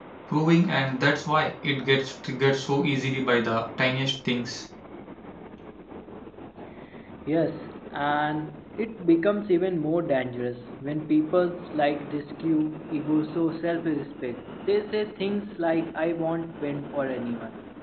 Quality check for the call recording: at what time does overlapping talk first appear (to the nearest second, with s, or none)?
none